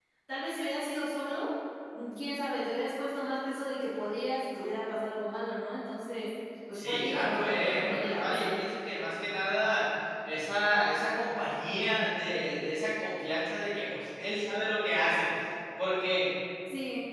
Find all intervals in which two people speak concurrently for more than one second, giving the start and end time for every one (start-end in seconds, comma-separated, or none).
6.8-8.4